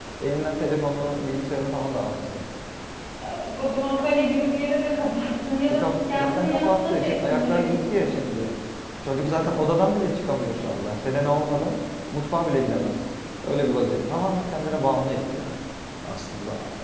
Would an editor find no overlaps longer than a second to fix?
No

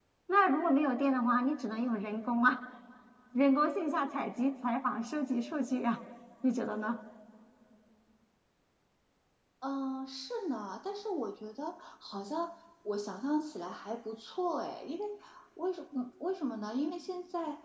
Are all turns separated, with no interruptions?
Yes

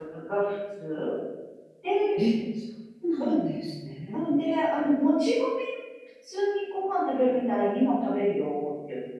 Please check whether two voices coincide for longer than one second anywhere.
No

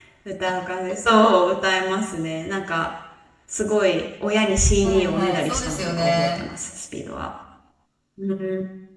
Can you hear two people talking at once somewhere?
Yes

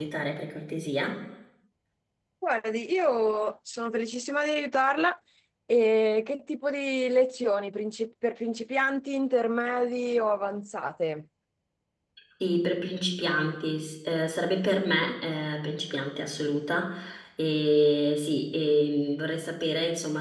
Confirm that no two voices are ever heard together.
Yes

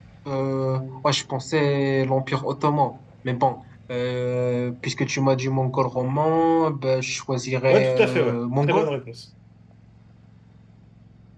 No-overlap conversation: No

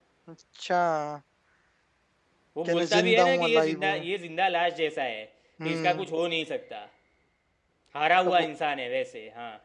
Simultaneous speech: Yes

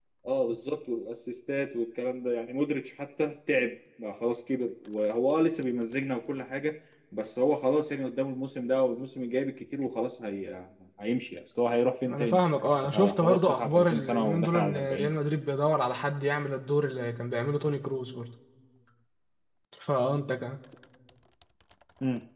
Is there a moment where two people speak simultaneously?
Yes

